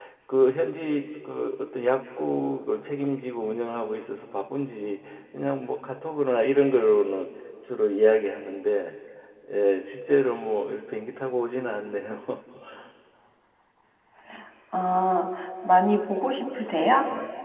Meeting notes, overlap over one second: none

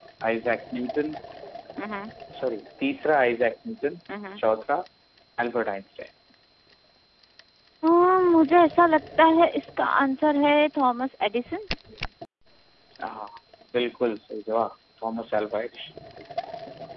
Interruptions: none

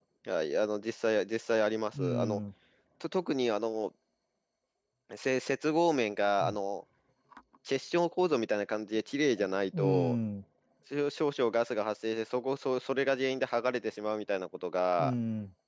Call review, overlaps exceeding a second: none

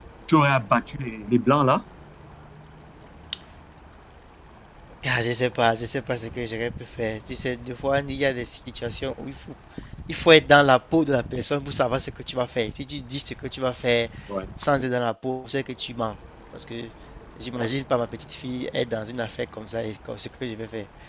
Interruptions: none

